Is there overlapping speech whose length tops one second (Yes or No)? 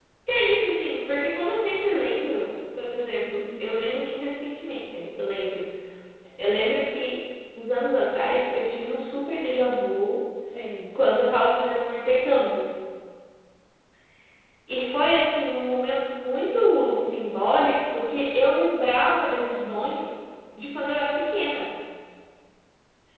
No